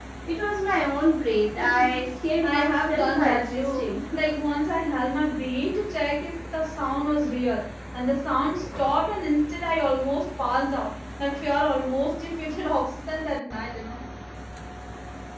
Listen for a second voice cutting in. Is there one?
Yes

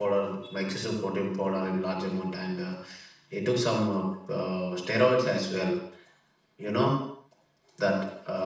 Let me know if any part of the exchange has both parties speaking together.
No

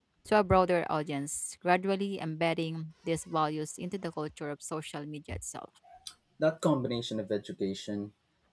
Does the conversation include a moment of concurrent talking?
No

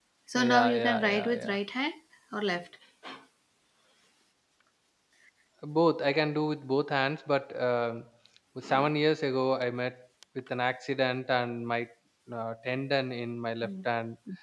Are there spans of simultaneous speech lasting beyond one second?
Yes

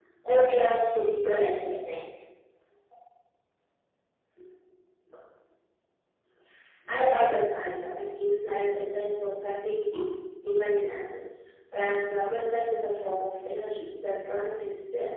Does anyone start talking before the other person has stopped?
No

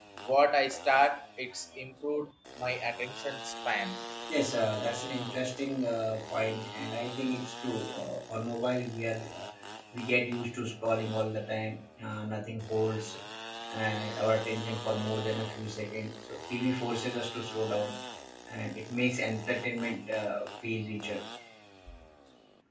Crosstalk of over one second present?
No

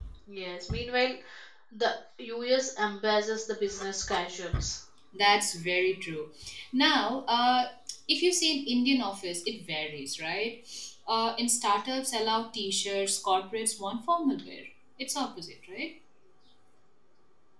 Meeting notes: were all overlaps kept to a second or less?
Yes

